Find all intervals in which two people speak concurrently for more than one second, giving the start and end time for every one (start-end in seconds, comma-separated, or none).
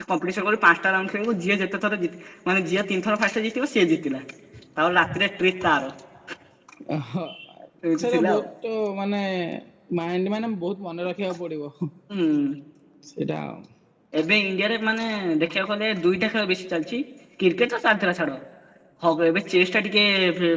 none